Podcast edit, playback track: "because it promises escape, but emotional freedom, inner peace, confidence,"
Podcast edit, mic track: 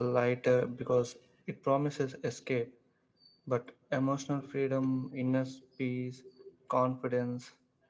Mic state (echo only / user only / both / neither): echo only